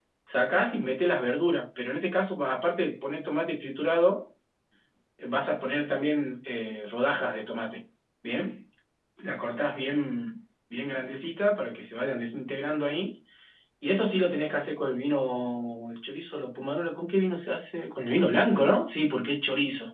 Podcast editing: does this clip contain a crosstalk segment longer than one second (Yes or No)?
No